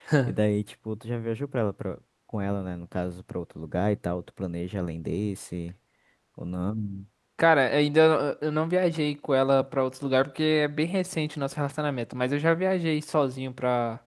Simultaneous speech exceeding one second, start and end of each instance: none

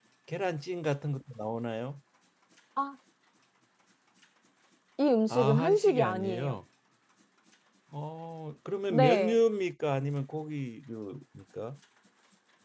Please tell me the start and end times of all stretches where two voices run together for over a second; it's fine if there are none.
5.3-6.6

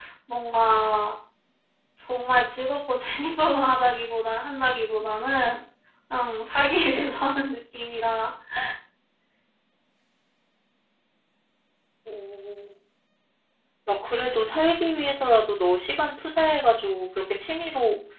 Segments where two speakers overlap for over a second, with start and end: none

